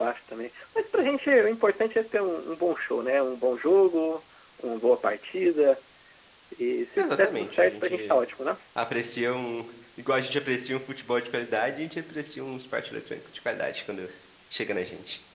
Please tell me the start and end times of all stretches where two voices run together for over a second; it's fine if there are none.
7.0-8.2

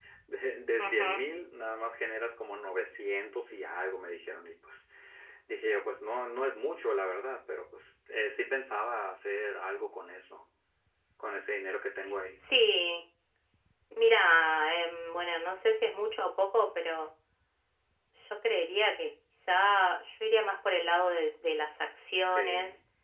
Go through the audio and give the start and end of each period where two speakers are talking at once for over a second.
none

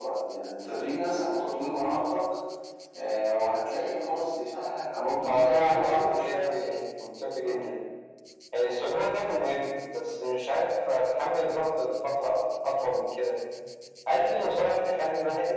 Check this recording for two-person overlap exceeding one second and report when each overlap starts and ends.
5.2-6.5

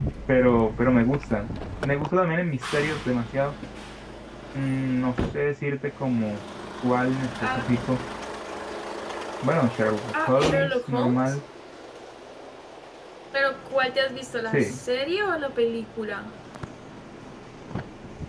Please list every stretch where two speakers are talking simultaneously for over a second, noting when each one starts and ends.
10.1-11.4

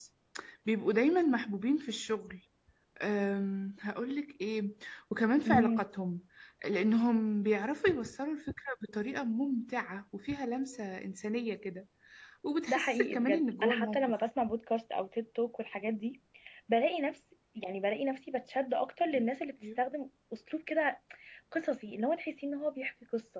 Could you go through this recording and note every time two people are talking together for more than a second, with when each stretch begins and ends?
12.7-14.1

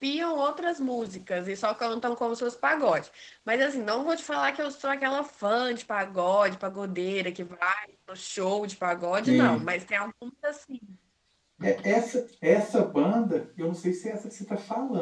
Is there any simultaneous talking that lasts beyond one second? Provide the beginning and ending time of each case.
none

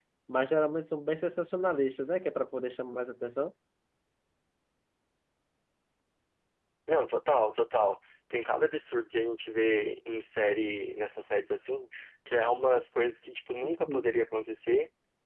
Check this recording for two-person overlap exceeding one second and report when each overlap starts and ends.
none

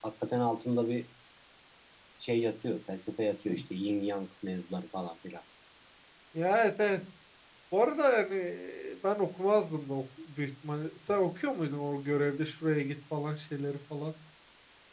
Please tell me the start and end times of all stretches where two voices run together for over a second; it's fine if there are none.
none

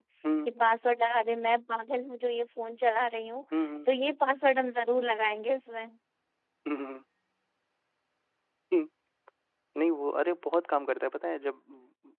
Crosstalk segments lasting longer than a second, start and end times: none

